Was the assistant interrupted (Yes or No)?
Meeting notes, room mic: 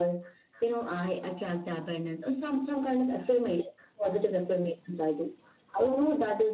No